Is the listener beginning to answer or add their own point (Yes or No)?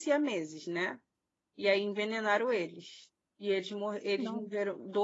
No